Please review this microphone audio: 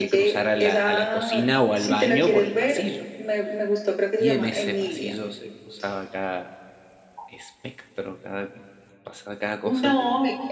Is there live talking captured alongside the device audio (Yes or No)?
Yes